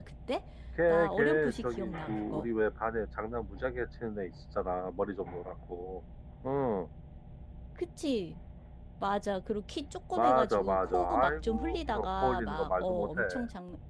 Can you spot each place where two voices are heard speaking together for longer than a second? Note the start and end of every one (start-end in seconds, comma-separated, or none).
0.9-2.5, 10.2-13.2